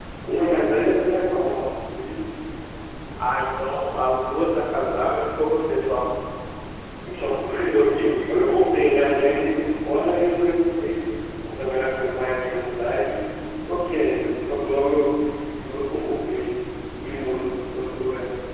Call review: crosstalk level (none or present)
none